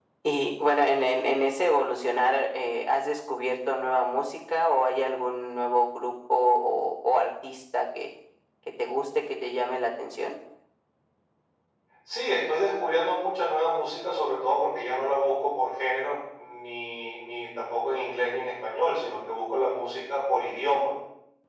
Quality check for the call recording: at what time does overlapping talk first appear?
none

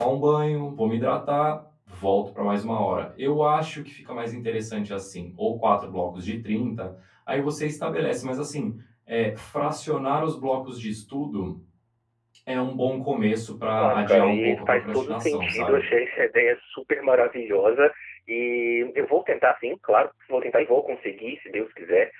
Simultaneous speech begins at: 13.8 s

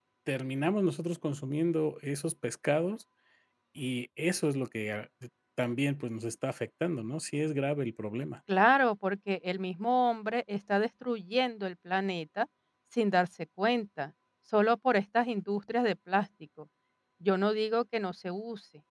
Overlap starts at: none

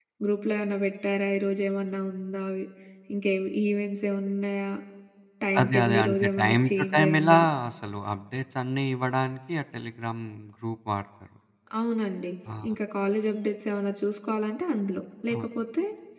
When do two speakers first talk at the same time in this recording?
5.6 s

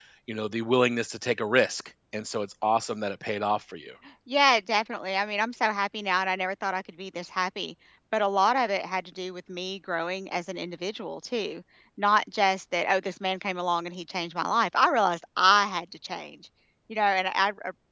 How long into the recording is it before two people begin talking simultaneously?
none

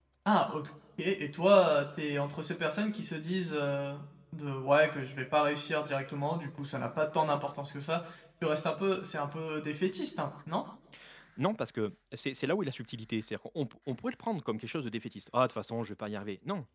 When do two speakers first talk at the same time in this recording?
none

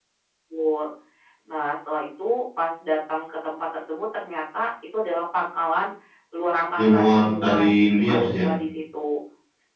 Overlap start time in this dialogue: 6.8 s

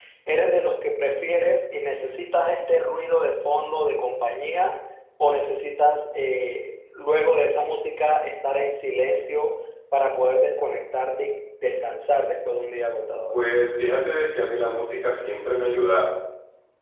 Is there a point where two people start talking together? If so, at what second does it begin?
none

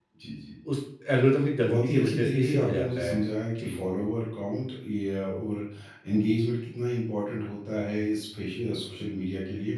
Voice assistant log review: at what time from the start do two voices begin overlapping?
1.6 s

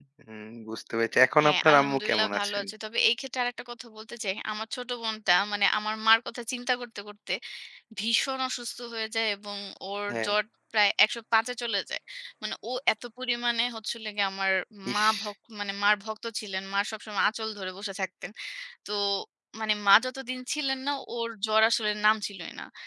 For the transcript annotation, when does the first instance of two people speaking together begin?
1.4 s

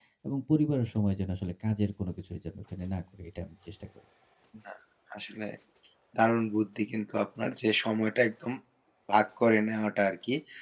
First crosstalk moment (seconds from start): none

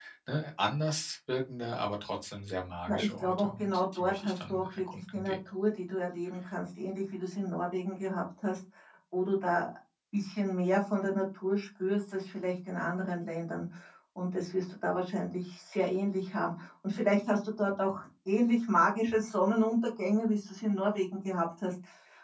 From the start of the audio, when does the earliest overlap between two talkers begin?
2.9 s

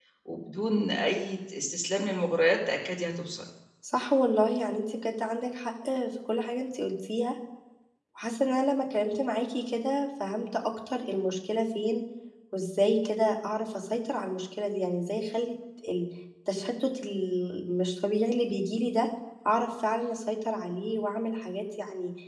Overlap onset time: none

